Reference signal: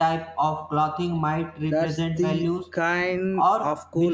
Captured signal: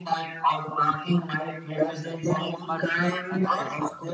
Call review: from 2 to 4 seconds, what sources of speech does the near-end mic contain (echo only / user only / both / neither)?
both